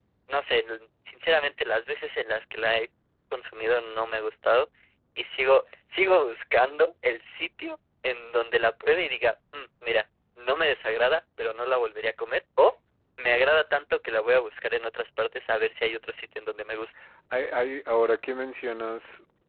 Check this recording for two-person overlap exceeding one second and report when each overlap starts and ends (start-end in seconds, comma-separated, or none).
none